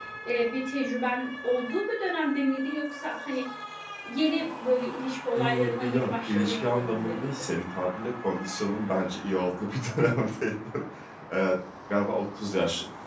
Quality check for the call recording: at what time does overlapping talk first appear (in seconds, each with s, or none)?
5.3 s